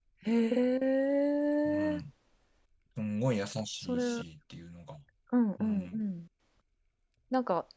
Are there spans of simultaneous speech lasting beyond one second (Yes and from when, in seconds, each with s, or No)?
No